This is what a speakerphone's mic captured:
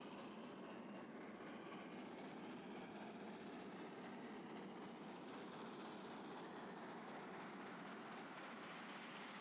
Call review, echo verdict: none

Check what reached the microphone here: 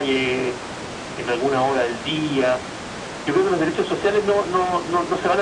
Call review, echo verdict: present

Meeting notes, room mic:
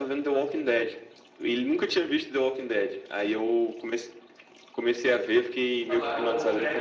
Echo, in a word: present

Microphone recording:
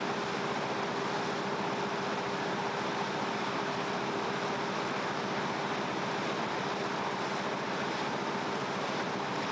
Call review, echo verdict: none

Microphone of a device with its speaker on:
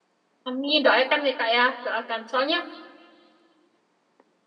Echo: none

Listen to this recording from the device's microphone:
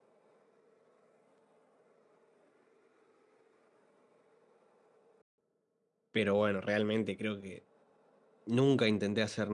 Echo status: none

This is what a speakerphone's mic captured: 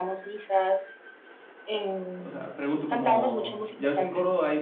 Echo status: present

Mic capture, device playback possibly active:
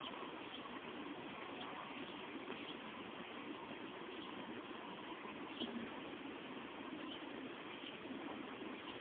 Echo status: none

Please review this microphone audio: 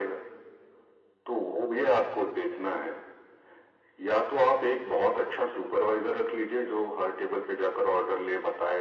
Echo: present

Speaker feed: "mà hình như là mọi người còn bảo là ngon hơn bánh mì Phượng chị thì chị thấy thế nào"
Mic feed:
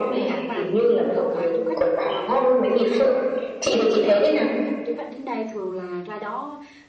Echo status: present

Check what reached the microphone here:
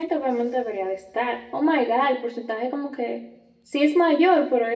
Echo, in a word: none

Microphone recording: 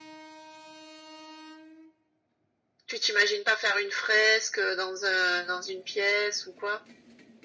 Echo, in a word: present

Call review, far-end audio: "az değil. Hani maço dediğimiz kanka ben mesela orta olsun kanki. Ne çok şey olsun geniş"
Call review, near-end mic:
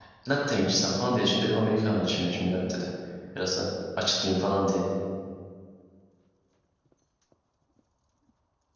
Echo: none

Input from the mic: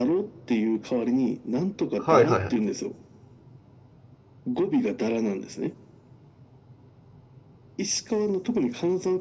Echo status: present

